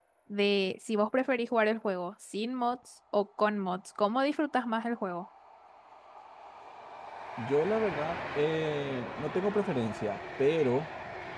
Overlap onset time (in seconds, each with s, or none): none